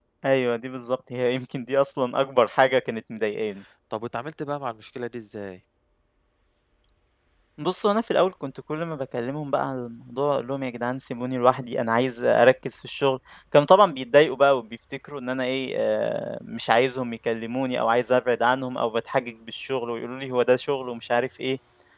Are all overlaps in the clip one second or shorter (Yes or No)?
Yes